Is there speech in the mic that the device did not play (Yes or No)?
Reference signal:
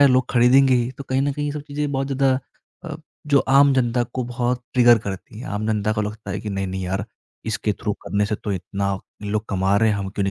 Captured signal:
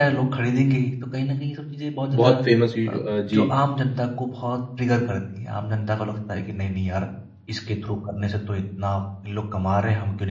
Yes